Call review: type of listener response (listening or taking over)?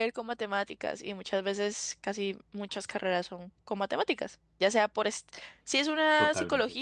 listening